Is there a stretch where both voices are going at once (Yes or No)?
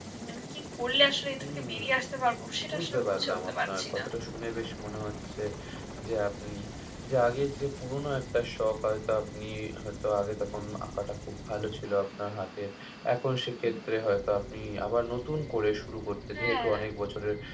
Yes